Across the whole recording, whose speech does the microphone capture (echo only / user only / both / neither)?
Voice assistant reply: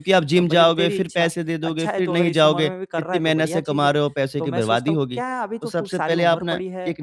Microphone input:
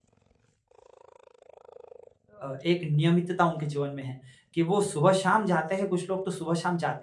user only